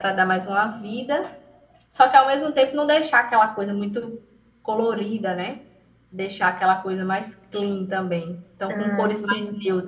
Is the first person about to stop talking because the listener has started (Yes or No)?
No